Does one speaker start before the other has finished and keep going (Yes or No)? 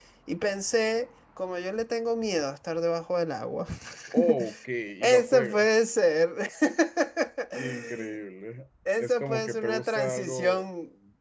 Yes